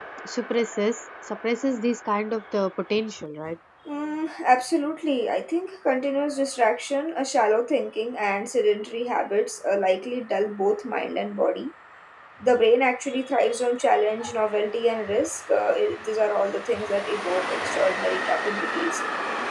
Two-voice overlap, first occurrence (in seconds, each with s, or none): none